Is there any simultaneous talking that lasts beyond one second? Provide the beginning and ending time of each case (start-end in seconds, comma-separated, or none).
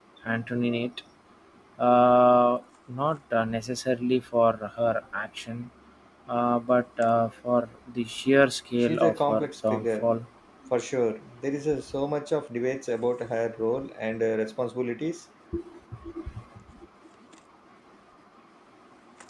8.8-10.1